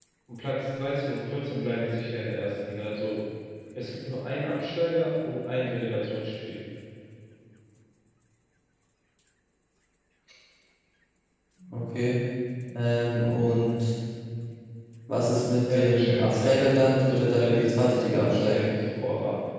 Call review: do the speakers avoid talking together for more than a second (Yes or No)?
No